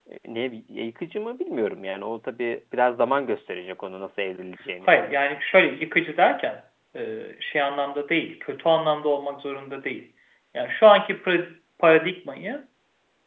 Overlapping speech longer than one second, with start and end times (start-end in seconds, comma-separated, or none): none